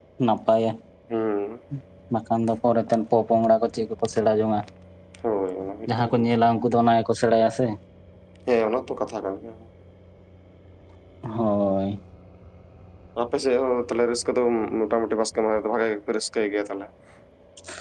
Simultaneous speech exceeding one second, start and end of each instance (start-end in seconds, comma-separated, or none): none